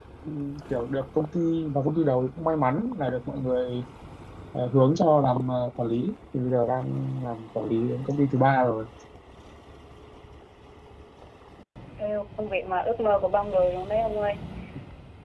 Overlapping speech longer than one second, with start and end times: none

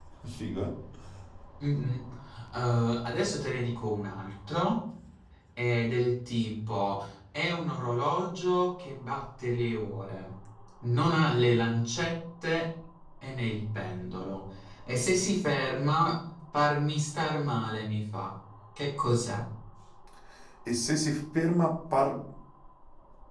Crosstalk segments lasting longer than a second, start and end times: none

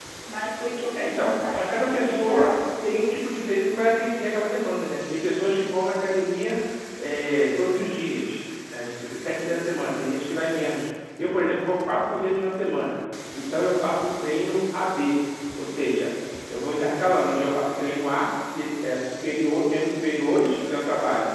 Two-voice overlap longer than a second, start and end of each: 0.9-2.6

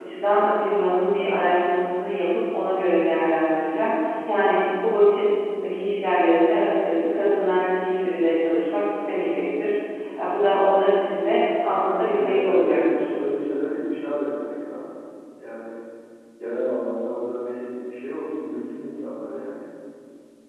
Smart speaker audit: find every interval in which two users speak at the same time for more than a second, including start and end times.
11.9-13.1

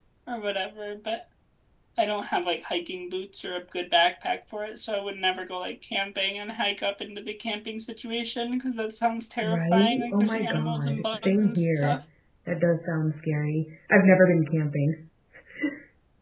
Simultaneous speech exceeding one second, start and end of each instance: 9.4-12.0

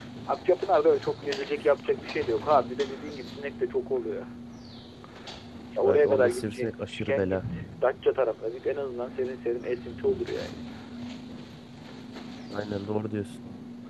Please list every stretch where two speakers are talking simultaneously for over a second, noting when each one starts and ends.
5.8-7.4

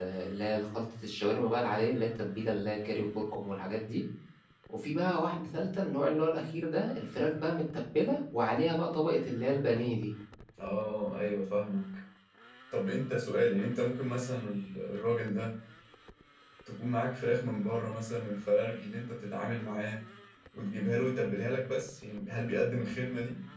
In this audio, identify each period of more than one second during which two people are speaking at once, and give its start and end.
none

